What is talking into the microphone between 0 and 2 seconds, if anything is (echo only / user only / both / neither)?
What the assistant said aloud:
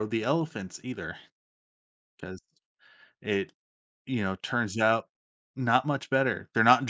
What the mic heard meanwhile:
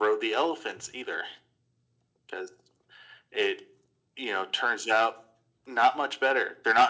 echo only